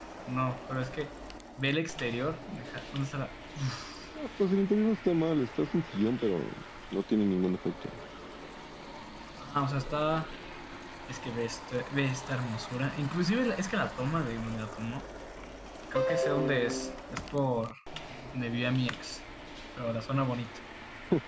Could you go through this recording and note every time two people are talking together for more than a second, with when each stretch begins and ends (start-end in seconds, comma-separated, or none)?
none